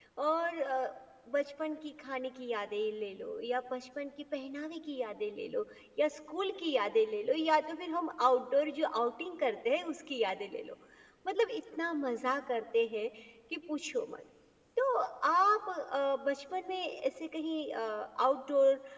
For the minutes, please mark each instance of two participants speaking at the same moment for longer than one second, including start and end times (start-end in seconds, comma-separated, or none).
none